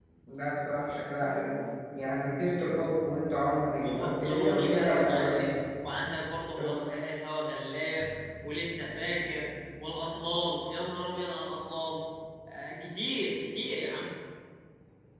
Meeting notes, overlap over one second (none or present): present